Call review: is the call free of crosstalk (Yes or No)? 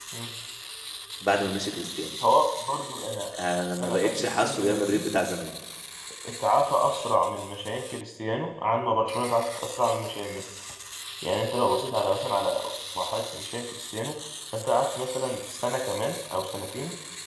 No